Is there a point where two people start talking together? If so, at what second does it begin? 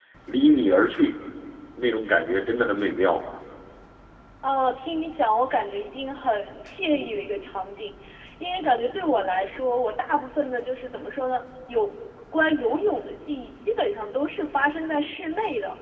none

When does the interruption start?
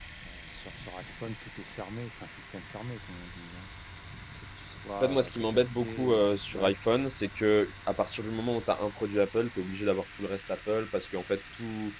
5 s

